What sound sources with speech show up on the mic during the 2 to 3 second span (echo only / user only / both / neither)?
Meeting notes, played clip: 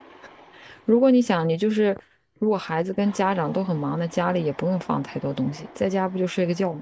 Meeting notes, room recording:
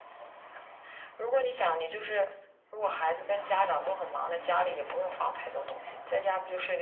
echo only